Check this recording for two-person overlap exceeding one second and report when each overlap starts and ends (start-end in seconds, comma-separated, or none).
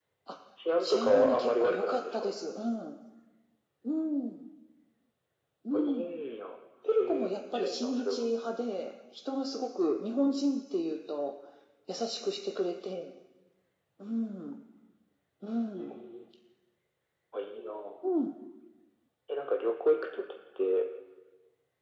0.8-2.4, 6.9-8.2